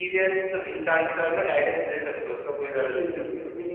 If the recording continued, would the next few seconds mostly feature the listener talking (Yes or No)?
Yes